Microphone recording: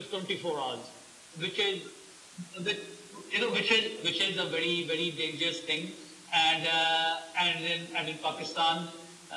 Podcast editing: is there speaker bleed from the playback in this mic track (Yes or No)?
Yes